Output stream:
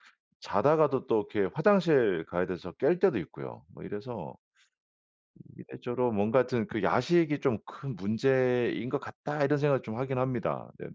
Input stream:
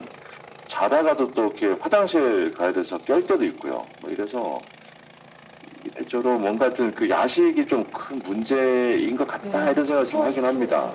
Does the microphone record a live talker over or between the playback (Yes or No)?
Yes